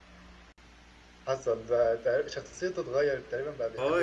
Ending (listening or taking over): taking over